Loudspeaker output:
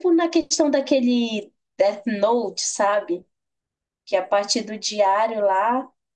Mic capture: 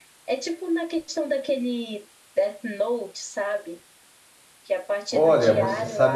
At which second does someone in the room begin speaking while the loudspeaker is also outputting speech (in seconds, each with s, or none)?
5.1 s